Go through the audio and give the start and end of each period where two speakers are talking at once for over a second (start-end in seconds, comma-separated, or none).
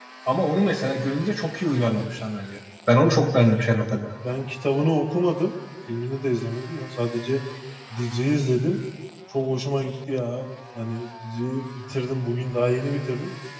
none